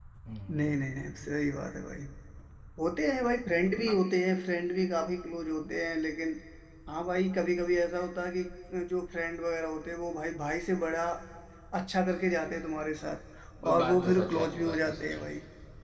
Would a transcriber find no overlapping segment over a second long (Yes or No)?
No